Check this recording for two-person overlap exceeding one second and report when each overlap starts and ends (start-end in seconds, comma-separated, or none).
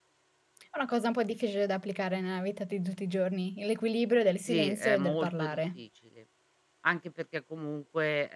4.5-5.8